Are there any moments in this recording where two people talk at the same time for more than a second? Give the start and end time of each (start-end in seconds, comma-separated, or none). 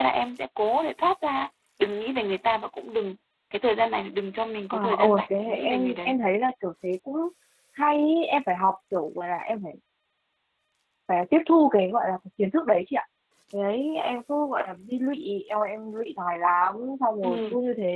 4.7-6.2